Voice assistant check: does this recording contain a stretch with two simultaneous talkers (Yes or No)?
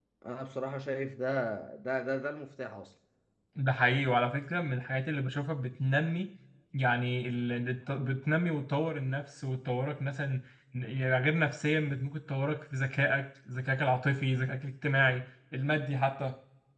No